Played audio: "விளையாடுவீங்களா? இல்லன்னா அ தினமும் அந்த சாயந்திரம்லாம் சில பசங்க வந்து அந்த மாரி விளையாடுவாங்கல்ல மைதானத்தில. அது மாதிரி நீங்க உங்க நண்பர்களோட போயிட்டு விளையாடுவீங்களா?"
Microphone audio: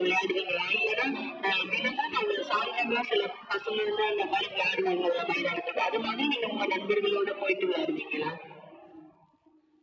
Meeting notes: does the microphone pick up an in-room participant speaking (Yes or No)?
No